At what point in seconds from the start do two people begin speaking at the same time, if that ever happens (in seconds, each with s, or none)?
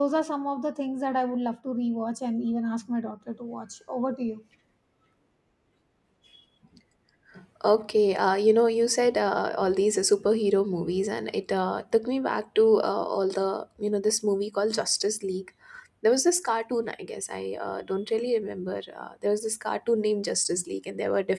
none